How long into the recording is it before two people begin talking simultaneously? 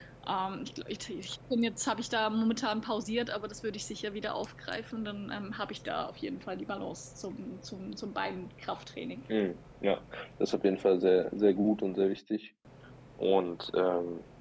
none

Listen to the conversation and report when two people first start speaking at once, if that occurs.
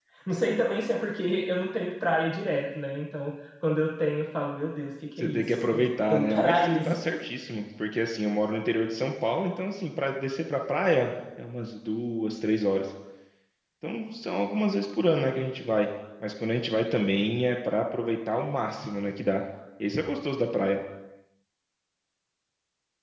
5 s

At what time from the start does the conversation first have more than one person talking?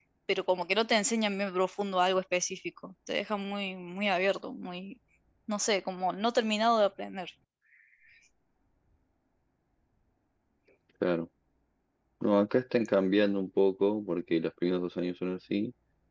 none

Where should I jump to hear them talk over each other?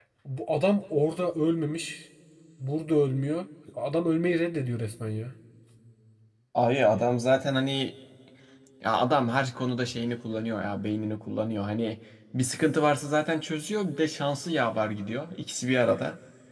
none

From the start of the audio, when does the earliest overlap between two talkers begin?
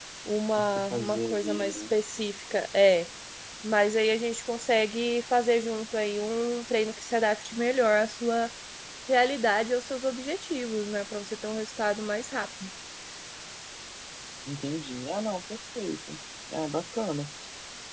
1 s

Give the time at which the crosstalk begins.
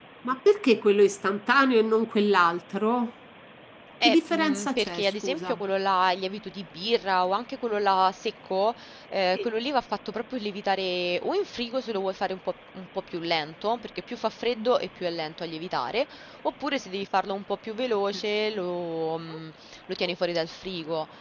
4 s

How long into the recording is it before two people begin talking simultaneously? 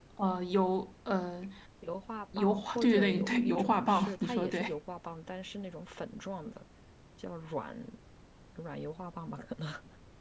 2 s

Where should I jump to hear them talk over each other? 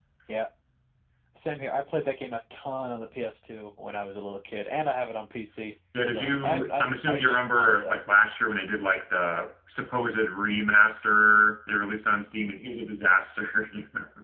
6 s

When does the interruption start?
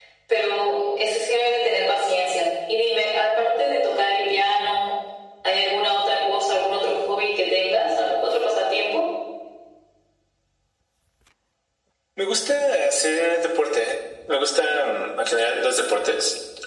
none

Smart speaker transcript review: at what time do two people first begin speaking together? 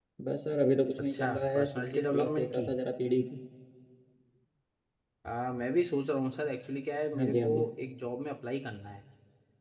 1 s

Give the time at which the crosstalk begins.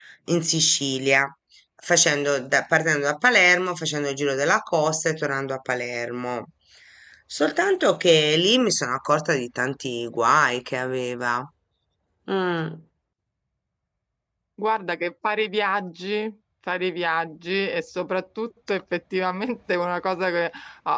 none

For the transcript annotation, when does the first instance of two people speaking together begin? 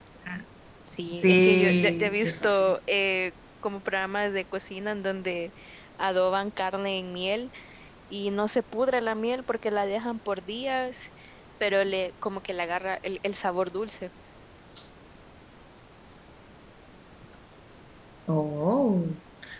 1 s

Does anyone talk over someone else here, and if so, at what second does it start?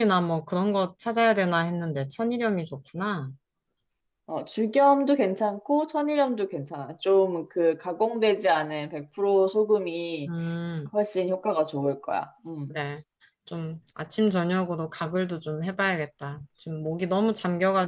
none

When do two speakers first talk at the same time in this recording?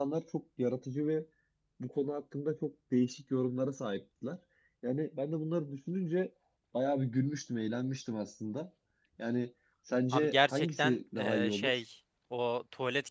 10 s

